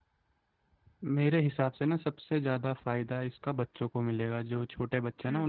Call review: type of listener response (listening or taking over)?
listening